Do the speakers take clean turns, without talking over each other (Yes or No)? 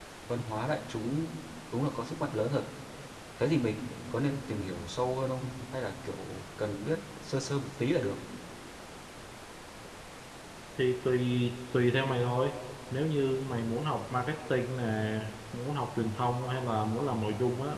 Yes